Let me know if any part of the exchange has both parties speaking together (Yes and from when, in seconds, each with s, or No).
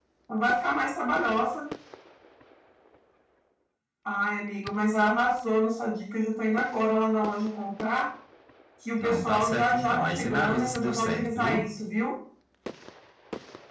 Yes, from 9.0 s